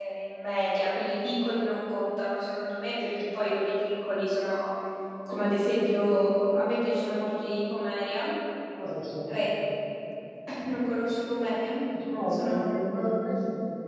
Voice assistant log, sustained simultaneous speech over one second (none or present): none